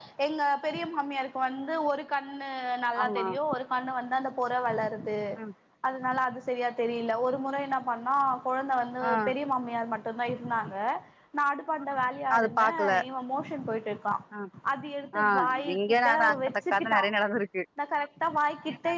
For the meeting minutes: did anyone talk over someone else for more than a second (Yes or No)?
Yes